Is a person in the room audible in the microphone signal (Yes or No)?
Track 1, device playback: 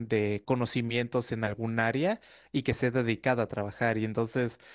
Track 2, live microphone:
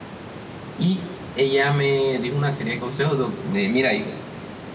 Yes